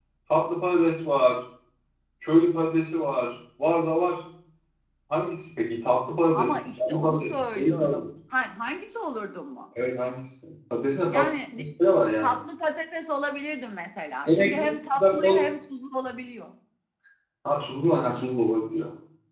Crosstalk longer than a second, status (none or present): present